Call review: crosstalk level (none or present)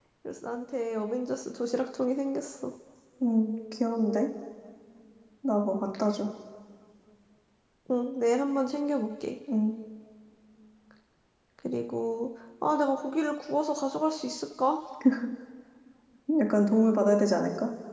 none